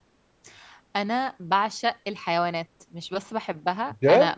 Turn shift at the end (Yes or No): No